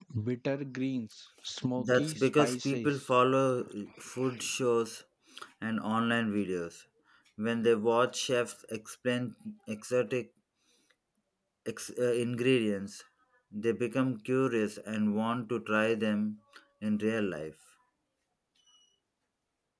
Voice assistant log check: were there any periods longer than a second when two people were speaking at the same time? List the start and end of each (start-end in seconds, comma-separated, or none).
1.8-3.0